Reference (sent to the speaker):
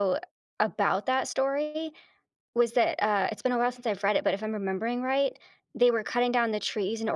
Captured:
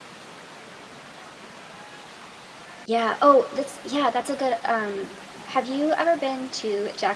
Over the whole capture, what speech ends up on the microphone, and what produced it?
user only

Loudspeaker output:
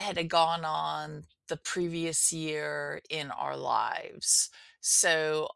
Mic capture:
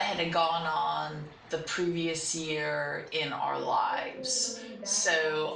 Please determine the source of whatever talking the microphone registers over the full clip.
both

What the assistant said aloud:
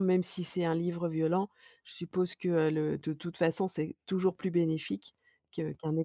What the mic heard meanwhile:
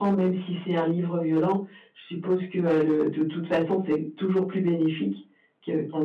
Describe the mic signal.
echo only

